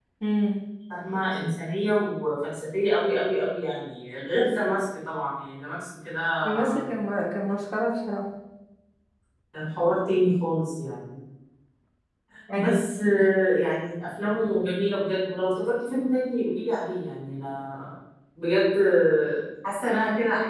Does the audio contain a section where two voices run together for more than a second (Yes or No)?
No